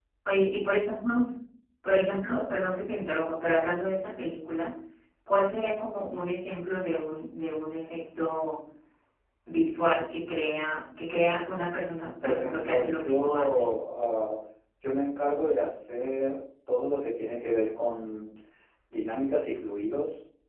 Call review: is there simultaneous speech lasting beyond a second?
Yes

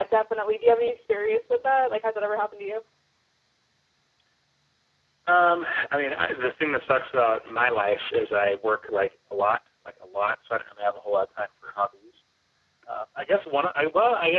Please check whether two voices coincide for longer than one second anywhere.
No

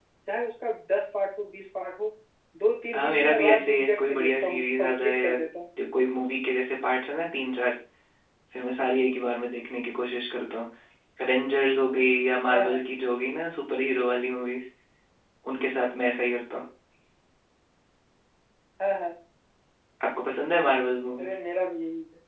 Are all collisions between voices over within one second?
No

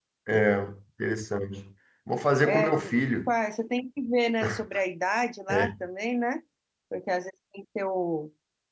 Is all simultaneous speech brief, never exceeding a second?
Yes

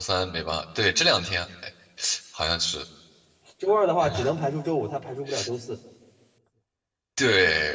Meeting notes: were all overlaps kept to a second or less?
Yes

